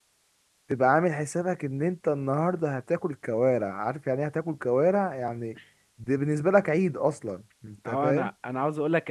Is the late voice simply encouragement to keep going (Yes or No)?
No